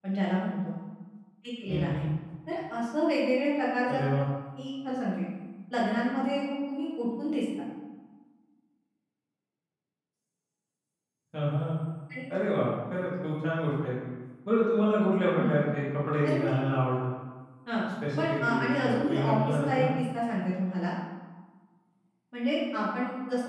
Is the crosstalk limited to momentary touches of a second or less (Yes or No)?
No